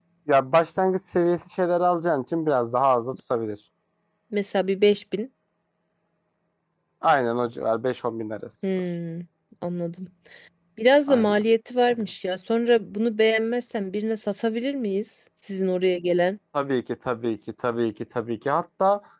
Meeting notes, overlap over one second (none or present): none